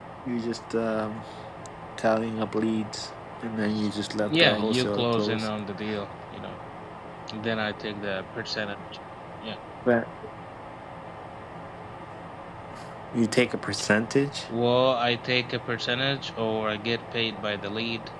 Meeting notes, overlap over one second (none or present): present